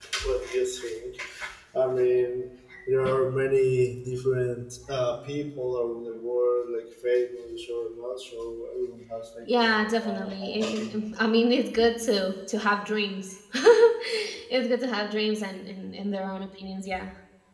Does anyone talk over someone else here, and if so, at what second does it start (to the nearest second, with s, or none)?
9 s